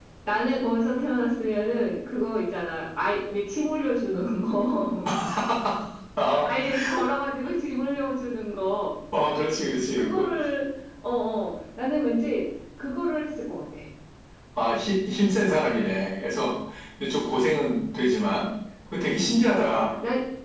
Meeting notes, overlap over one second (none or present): none